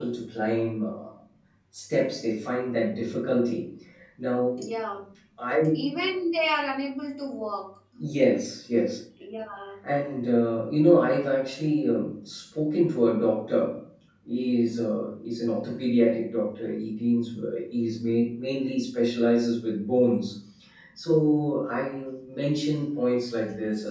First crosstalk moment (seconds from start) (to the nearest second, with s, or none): none